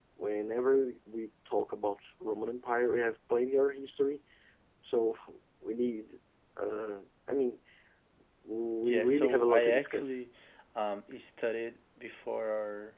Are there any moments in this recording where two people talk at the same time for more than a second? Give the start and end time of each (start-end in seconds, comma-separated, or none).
8.8-10.2